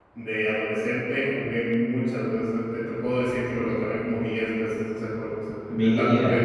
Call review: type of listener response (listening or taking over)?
listening